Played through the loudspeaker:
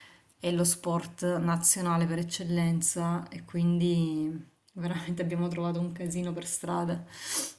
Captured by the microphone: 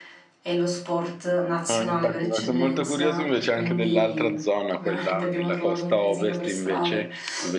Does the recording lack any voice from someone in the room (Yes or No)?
No